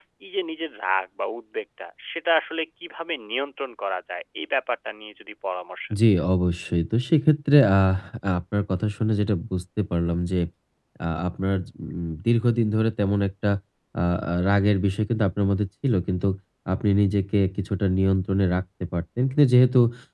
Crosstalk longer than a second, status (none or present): none